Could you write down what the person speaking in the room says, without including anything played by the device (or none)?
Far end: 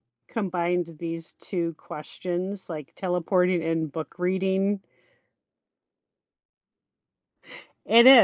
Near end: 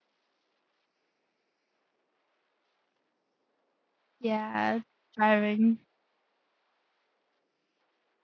yeah, driving.